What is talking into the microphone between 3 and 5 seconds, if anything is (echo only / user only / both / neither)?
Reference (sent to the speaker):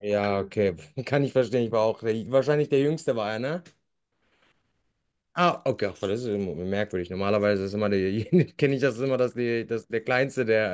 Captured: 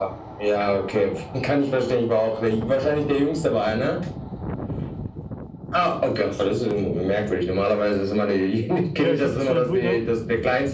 echo only